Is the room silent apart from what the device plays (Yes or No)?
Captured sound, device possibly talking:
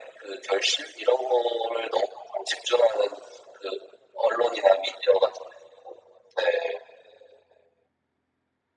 Yes